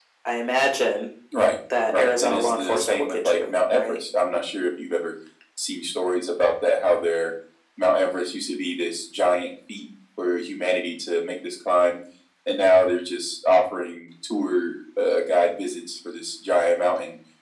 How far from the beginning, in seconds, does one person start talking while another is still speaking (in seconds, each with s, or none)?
1.9 s